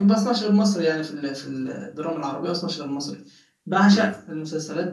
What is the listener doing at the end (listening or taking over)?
listening